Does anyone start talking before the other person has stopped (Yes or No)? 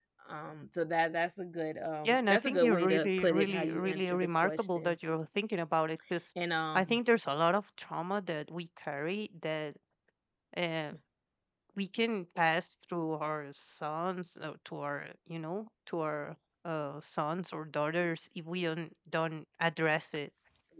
Yes